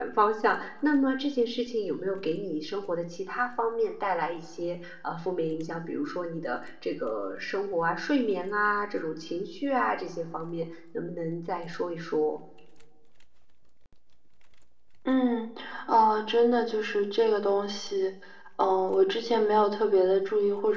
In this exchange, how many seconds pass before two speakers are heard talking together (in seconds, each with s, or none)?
none